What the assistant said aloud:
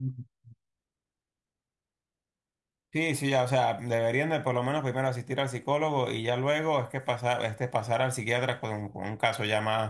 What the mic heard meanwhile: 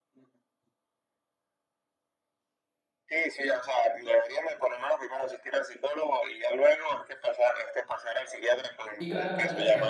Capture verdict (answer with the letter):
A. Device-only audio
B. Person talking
B